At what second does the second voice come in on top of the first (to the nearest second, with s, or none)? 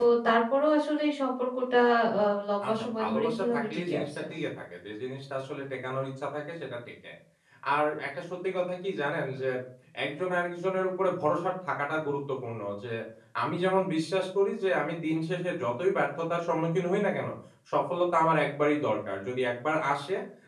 3 s